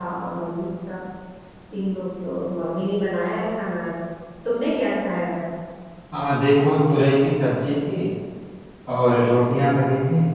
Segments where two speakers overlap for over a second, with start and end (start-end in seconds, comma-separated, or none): none